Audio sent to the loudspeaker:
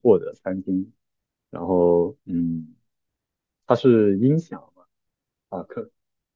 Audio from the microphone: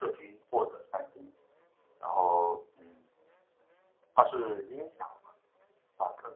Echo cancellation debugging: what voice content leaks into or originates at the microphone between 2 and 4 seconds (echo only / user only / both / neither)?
echo only